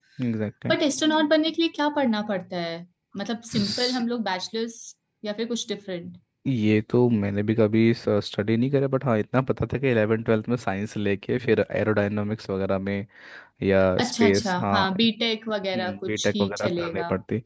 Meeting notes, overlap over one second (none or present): present